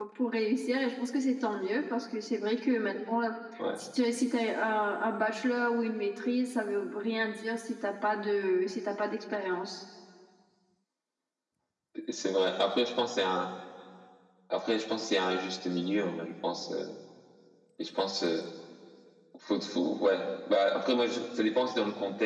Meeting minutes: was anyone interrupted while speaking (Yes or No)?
No